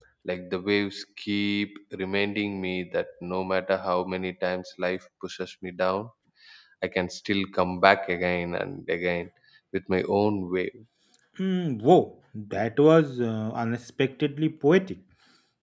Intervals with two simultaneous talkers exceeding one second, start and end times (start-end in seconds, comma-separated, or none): none